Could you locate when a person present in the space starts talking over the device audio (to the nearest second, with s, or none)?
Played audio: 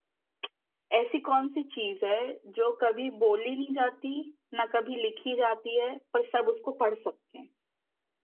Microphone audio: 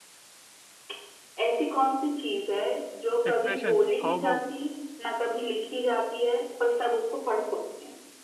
3 s